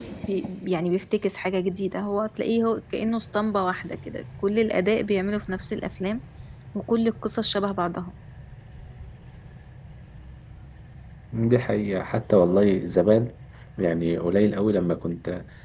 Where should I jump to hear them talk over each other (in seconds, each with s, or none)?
none